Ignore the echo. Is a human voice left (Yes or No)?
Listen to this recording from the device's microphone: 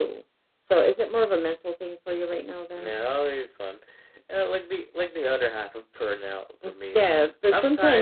No